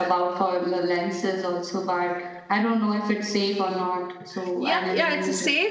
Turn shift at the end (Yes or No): Yes